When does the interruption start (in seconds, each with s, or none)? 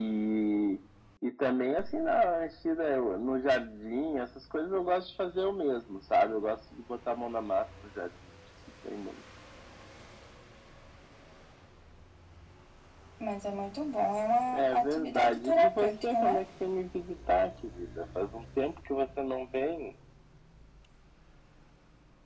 14.5 s